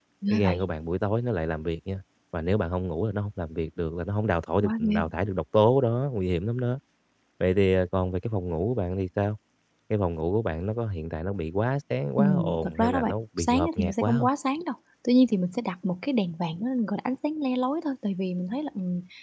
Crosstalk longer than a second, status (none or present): present